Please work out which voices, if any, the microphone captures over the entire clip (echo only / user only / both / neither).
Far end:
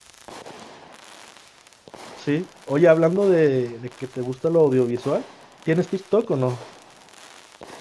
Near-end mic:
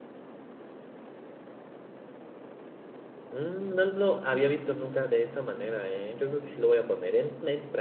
user only